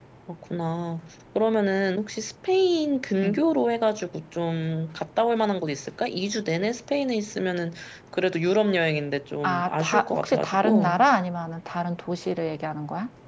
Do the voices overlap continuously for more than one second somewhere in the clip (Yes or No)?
Yes